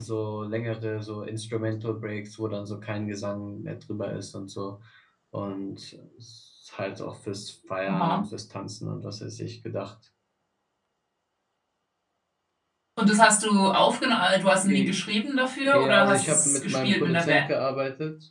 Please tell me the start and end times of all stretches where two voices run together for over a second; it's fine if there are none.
15.7-17.5

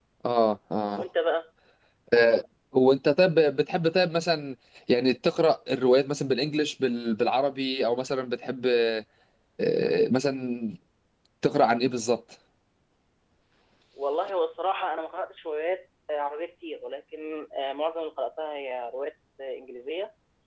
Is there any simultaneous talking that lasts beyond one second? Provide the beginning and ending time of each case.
none

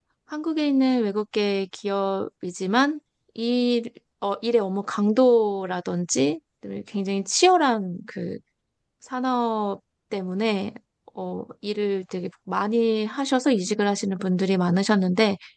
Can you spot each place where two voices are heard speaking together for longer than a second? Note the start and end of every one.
none

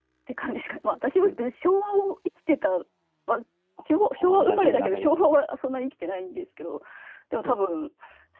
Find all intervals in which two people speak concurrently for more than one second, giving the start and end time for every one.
3.9-5.1

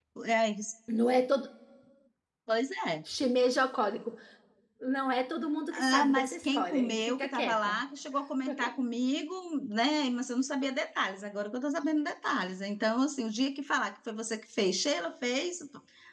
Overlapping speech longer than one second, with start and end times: 5.7-7.8

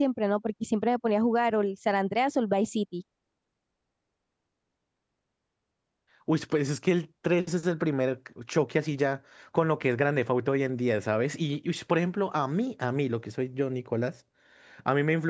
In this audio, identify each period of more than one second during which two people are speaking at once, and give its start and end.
none

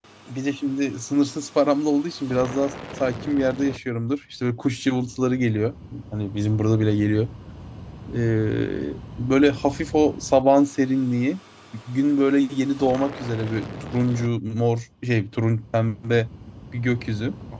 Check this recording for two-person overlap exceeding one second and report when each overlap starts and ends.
none

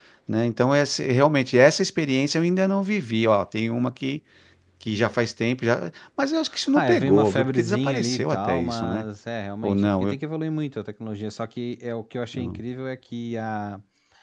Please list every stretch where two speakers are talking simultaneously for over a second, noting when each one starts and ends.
6.7-9.1

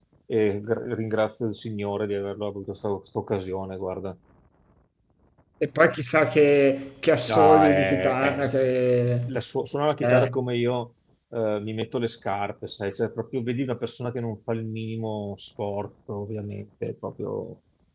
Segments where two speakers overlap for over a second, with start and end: 7.3-8.5

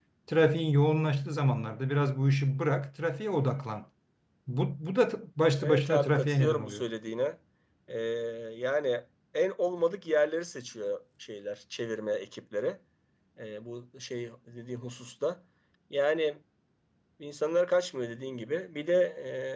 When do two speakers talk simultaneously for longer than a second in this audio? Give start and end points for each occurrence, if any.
5.6-6.8

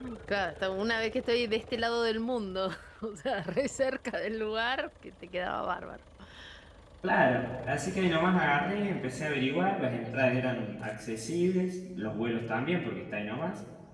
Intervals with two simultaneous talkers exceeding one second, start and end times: none

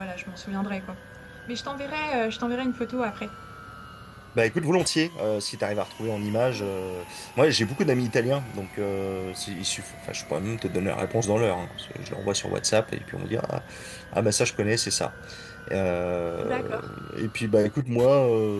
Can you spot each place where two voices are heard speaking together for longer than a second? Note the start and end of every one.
none

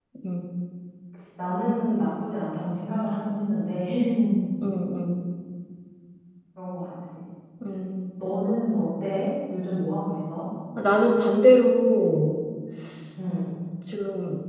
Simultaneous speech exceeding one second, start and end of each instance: none

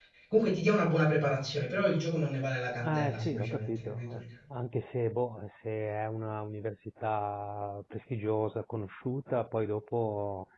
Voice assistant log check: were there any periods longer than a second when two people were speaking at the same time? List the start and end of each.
2.9-4.2

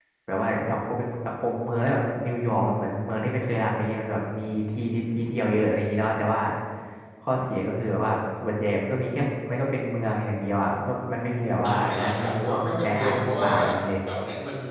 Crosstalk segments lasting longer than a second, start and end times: 11.6-13.5

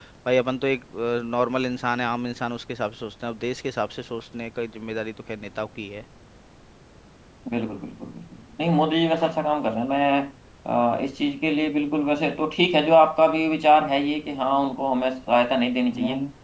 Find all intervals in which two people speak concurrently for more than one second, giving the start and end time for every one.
none

